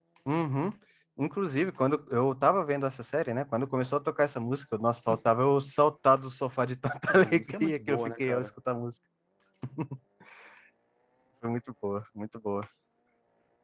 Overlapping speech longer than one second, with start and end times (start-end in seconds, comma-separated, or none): 7.1-8.5